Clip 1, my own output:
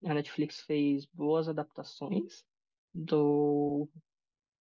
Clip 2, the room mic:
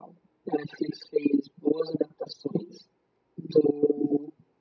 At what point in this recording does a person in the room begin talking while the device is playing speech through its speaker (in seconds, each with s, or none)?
none